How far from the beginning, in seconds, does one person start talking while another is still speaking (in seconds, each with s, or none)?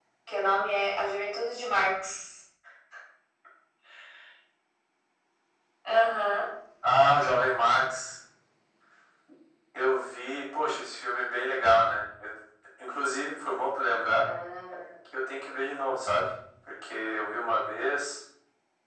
none